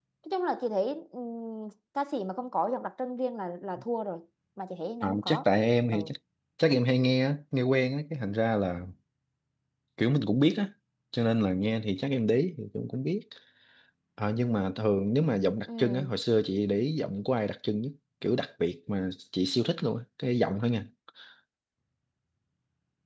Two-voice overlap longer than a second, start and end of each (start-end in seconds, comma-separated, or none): none